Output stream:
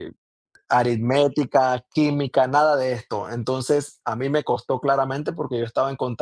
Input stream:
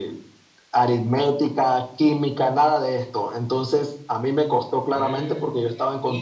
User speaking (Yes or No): Yes